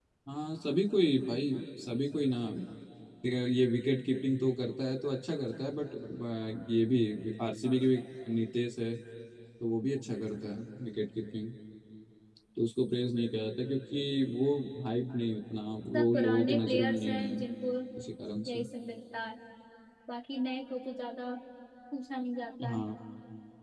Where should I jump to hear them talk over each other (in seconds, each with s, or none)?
15.9 s